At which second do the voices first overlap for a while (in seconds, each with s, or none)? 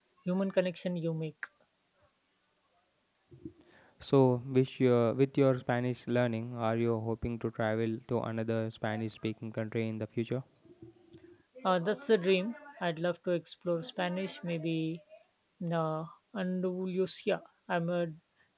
none